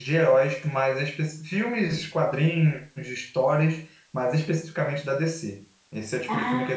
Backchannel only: Yes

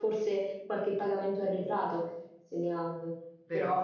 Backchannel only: Yes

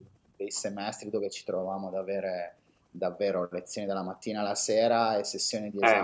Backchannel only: No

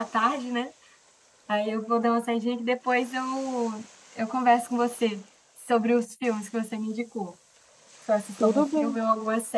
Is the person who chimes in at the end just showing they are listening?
Yes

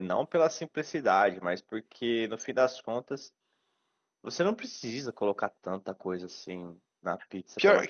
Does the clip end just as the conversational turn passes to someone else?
Yes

